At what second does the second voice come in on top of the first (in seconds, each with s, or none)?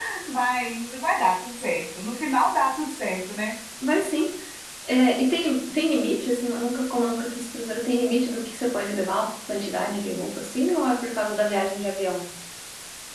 none